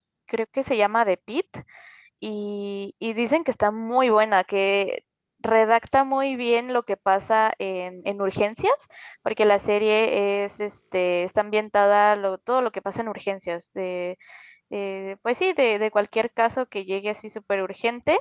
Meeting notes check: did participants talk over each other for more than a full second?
No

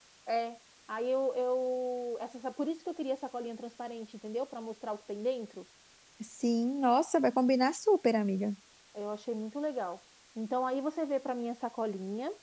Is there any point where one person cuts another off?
No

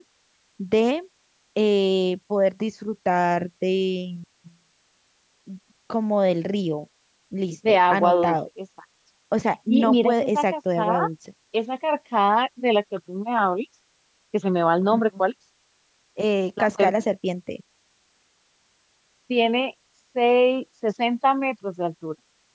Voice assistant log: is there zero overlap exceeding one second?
No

